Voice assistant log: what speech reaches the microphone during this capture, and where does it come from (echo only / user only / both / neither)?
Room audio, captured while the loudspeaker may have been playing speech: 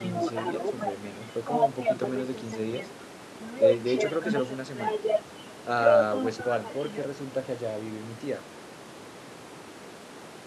both